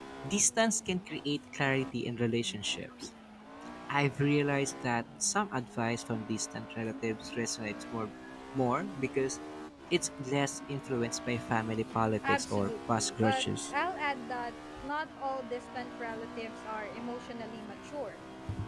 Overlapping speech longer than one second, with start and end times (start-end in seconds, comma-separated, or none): 12.3-13.7